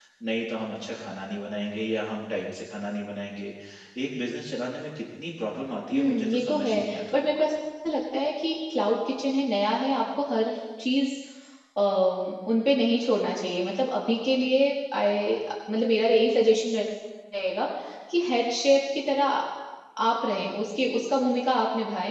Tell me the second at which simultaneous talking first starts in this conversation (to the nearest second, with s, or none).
6 s